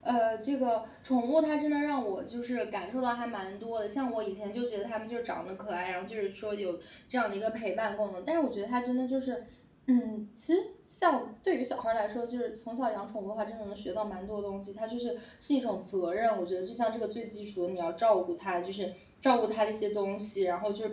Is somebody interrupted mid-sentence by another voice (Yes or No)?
No